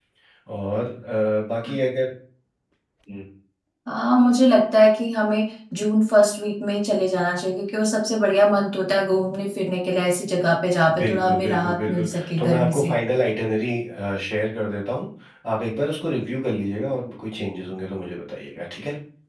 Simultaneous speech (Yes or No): Yes